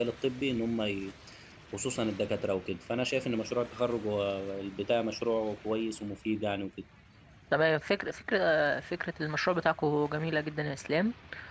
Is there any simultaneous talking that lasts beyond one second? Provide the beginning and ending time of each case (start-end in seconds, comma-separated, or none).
none